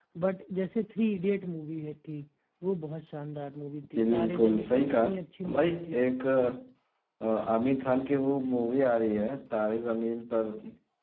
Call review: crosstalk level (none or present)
present